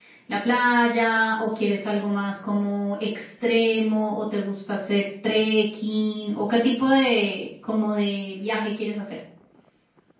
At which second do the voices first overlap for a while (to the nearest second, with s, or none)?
none